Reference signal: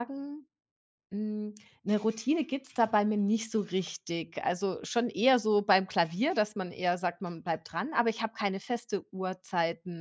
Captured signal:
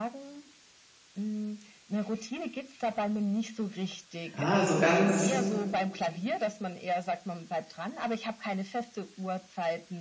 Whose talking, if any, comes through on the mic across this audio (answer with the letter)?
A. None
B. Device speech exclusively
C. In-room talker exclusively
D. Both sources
D